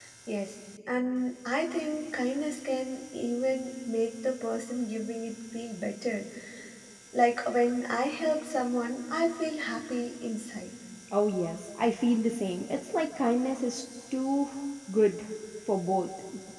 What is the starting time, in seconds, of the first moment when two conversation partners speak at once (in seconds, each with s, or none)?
none